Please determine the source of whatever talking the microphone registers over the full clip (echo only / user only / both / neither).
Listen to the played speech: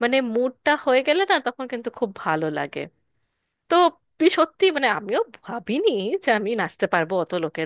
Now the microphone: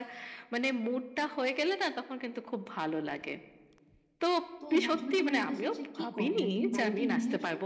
both